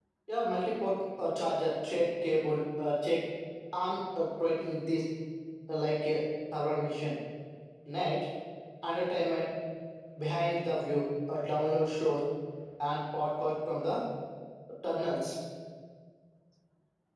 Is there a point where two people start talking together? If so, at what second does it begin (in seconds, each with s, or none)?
none